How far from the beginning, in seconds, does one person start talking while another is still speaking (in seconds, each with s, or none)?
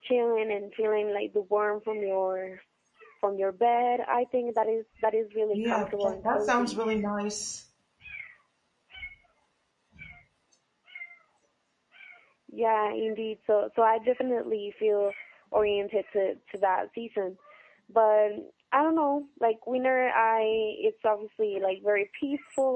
5.5 s